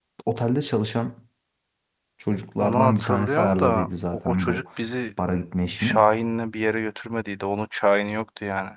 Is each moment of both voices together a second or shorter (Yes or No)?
No